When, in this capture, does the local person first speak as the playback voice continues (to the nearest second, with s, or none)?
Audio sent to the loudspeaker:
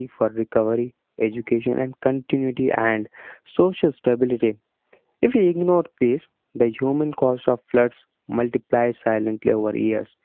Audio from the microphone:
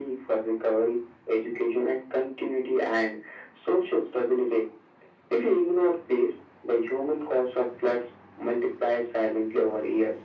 none